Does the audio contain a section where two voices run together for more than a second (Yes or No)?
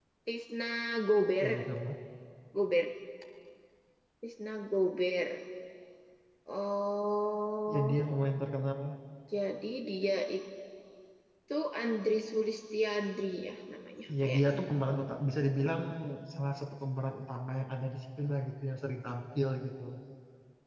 No